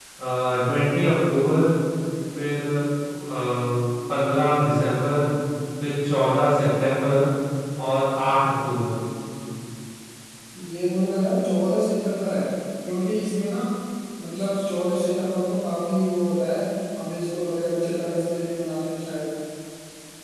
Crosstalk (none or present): none